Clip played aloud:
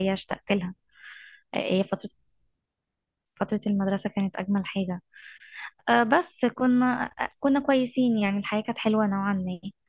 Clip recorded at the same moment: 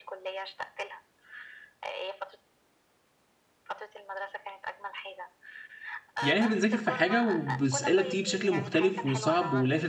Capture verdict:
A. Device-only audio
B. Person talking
B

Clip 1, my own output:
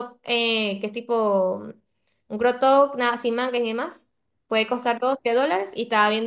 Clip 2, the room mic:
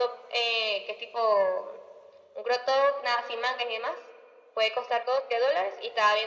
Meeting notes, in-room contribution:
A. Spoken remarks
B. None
B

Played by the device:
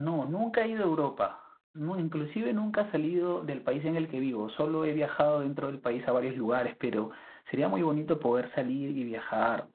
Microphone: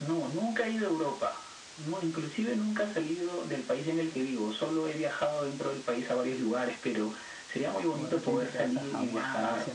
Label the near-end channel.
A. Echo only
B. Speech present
B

